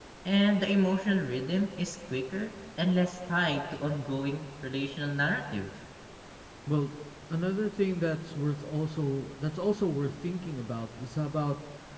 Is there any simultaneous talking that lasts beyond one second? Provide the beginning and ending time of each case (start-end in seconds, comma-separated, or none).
none